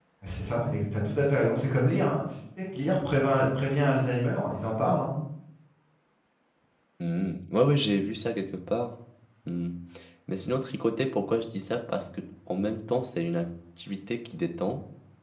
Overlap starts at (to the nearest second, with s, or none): none